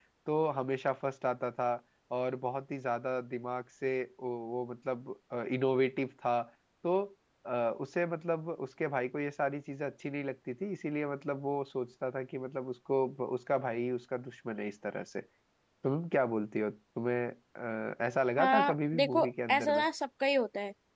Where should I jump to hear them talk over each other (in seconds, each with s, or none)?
18.4 s